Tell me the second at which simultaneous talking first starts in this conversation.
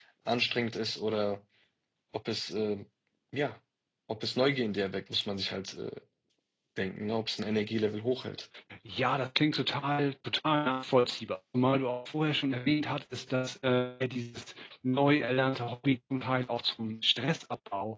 none

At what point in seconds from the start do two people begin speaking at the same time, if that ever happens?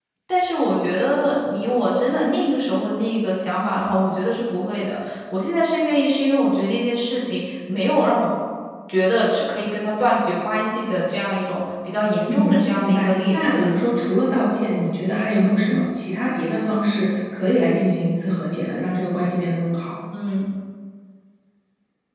12.3 s

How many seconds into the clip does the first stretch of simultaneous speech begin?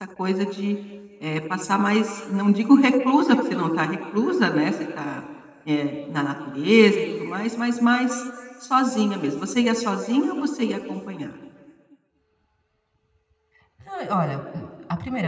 none

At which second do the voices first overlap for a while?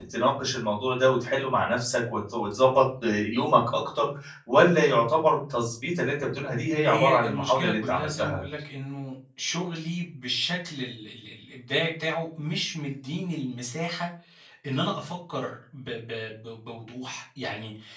6.8 s

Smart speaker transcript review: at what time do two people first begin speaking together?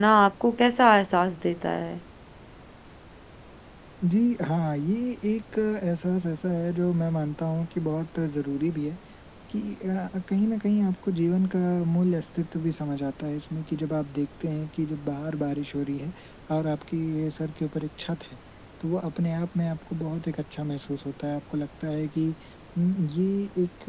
none

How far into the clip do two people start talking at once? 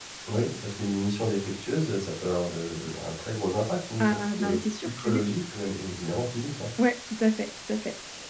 4.0 s

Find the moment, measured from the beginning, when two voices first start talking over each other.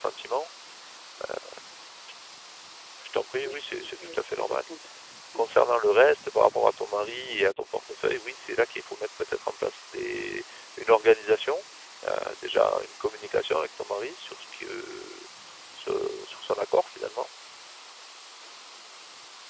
3.4 s

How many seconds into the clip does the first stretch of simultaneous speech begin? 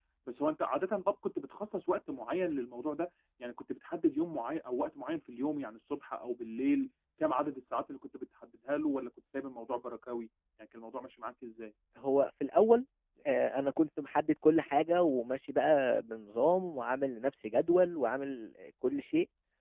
none

